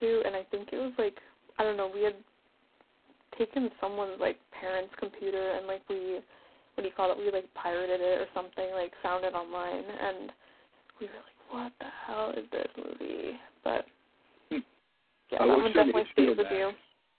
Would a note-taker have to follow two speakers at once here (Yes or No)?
Yes